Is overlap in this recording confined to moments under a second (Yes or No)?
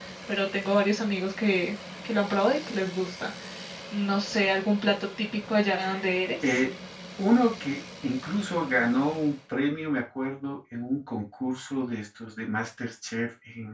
Yes